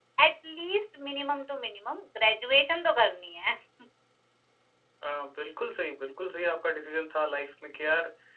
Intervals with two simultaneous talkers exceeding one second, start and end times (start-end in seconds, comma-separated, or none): none